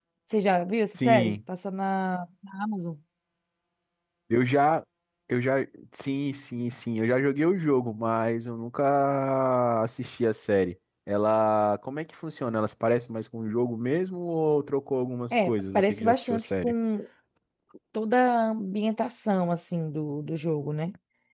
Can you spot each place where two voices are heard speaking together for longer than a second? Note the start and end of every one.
15.3-16.7

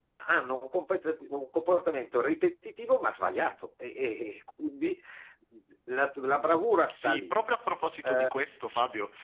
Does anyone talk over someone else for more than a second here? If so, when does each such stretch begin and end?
none

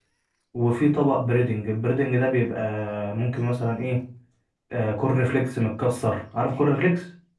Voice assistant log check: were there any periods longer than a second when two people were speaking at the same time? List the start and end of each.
none

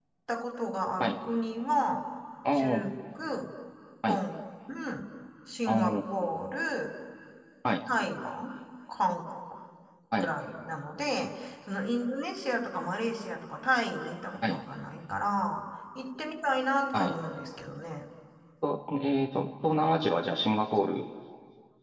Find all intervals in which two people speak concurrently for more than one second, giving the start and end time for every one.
none

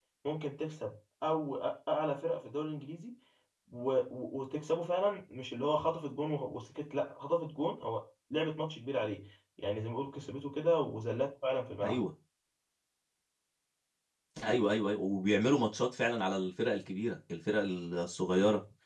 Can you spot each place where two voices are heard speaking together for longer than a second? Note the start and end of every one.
none

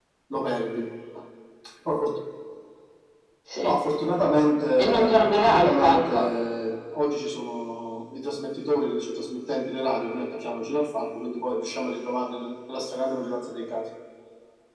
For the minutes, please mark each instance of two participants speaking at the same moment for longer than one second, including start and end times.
4.8-6.3

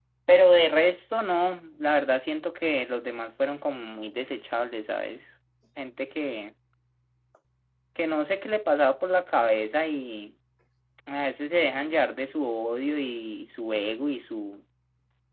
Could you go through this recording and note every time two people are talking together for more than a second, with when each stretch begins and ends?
none

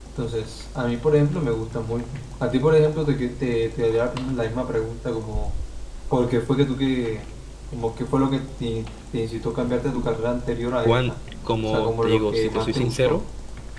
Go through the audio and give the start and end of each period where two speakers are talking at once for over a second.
11.7-13.2

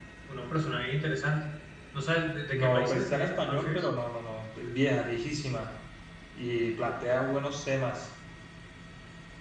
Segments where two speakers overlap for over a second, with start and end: 2.5-3.8

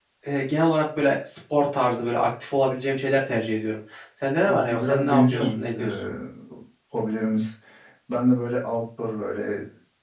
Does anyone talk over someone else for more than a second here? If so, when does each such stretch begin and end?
4.5-5.8

